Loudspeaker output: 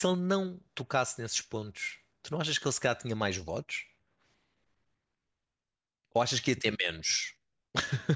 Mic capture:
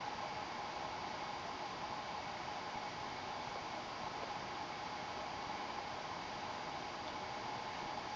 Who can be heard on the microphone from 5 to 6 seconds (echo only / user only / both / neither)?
neither